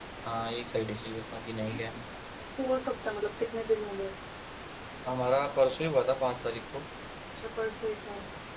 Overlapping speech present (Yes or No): No